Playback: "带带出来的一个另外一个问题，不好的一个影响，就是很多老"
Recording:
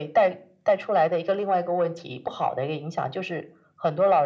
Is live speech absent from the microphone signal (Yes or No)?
Yes